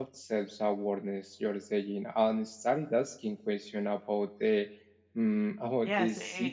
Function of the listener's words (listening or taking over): taking over